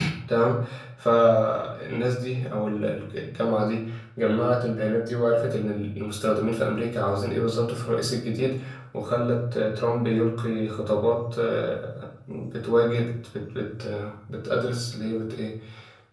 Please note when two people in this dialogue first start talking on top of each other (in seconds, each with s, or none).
none